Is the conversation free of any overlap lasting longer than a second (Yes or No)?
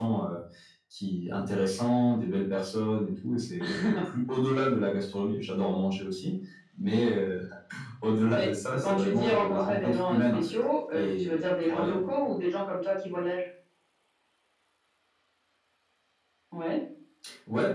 No